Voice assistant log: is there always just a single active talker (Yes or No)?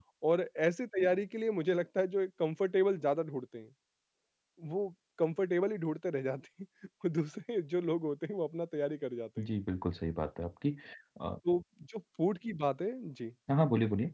Yes